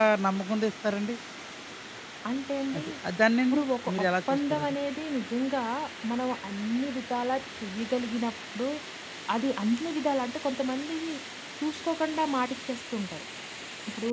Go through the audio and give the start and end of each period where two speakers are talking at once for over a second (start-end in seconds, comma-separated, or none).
3.5-4.8